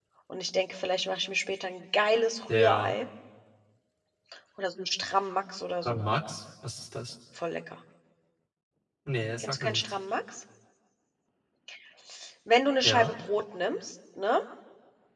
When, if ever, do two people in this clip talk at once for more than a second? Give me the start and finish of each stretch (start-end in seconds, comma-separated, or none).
none